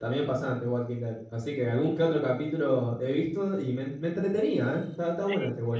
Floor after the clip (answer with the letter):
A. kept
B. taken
B